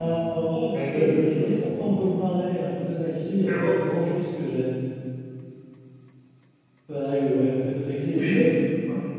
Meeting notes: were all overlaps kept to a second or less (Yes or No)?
No